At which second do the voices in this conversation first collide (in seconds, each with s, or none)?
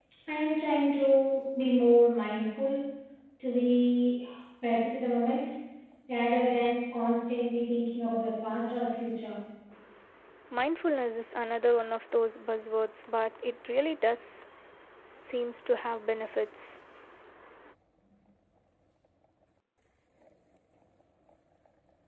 none